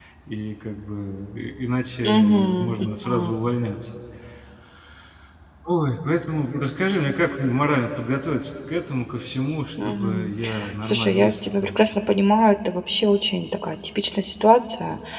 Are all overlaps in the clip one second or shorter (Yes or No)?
No